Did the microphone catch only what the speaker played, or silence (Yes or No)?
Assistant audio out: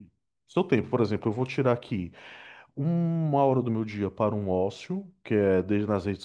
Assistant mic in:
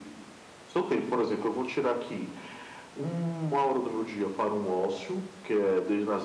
Yes